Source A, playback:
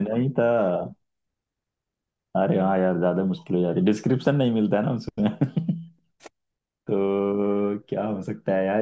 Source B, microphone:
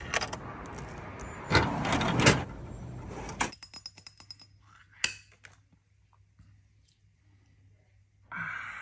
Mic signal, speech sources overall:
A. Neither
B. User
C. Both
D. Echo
A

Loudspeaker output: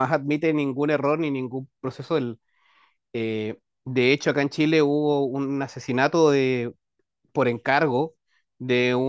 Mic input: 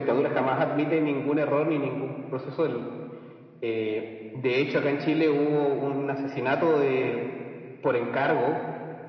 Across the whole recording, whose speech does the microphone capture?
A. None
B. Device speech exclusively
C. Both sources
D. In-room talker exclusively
B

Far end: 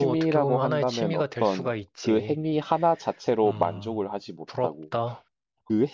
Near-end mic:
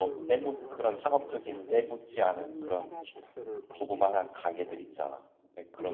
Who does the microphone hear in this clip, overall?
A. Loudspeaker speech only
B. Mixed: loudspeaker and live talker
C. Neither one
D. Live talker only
B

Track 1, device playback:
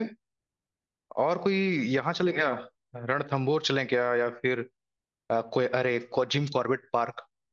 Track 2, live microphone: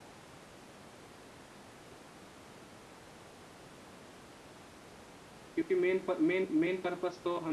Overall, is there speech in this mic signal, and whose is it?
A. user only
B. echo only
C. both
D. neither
A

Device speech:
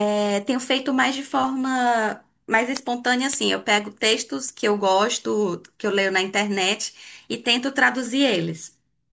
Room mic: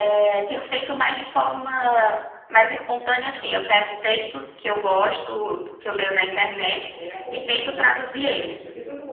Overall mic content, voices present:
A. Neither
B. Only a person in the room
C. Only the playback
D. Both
D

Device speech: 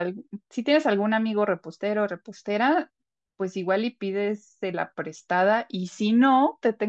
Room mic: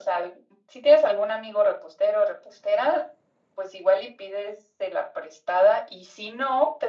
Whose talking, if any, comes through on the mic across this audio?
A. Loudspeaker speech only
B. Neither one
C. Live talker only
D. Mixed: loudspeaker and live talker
A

